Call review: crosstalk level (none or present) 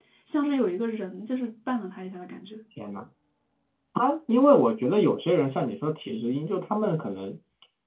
none